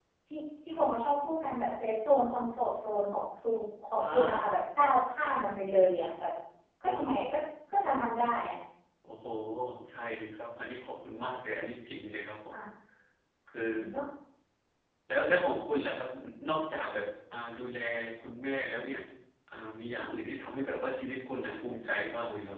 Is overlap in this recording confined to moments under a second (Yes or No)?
Yes